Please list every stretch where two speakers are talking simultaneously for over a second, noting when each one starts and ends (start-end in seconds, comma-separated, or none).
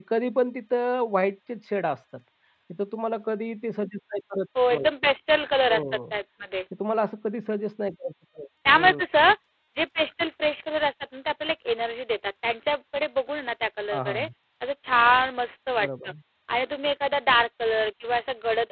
none